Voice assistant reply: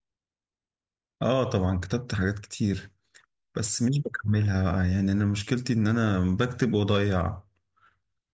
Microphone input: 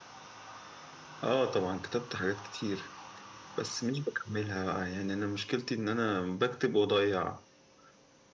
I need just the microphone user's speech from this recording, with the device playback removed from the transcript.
none

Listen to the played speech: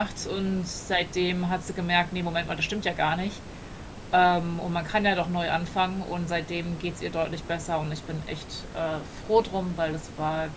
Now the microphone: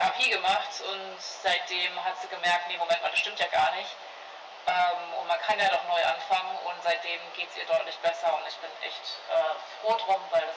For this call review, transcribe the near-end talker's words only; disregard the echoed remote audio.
none

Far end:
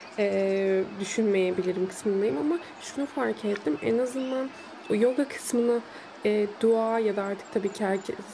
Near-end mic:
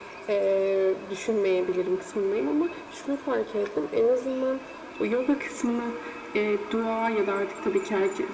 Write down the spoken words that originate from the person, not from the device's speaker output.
none

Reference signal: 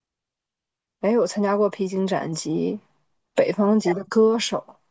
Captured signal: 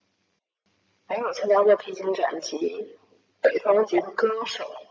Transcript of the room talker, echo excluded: none

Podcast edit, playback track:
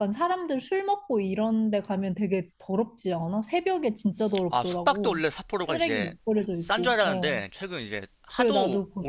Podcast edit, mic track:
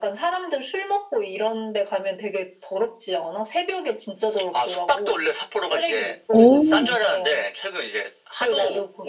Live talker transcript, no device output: 오.

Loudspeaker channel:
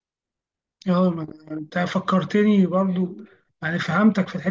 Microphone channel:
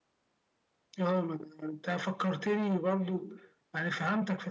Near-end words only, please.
none

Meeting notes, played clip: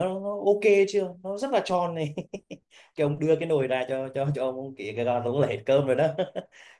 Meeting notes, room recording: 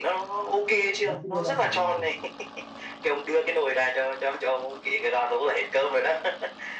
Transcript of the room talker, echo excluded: Bác sĩ vô va trả lời,

